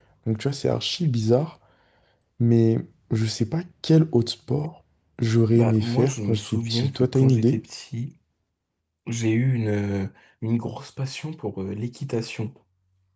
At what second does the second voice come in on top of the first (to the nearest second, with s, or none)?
6 s